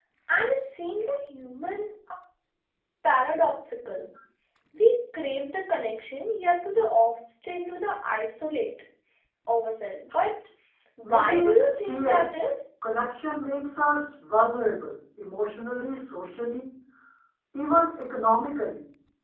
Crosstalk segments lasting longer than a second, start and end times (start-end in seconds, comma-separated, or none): 11.0-12.2